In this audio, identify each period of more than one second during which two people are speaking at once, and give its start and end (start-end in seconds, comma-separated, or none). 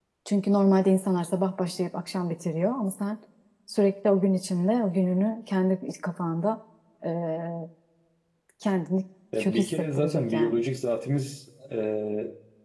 9.4-10.6